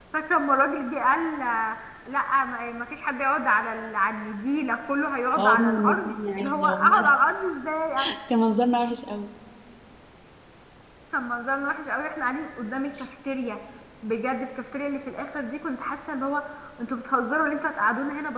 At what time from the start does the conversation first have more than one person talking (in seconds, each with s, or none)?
5.4 s